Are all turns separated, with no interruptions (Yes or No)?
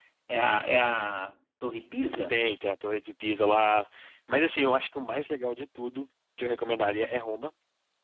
Yes